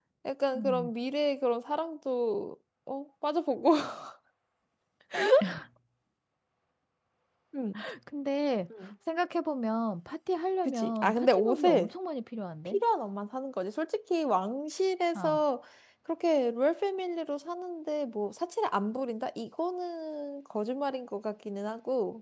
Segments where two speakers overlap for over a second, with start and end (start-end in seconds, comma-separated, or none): 10.7-11.9